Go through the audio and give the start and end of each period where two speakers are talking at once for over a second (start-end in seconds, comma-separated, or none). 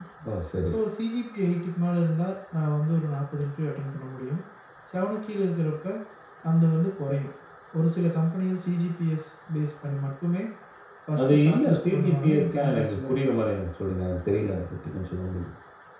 11.2-13.0